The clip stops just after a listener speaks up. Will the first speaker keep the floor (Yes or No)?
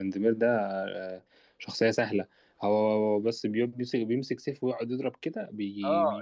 No